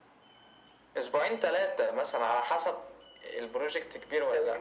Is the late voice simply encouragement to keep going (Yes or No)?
No